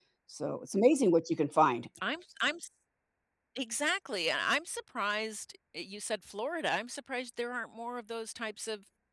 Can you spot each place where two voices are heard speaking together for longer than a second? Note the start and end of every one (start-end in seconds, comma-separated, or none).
none